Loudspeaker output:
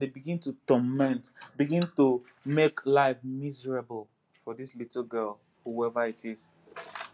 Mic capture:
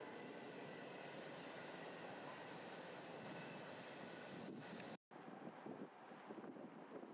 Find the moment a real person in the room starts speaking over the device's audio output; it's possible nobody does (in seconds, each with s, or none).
none